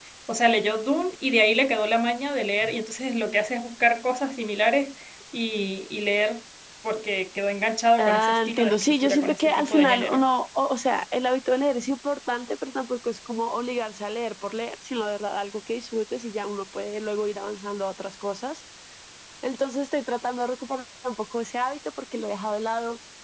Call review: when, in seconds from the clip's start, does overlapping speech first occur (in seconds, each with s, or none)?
8.0 s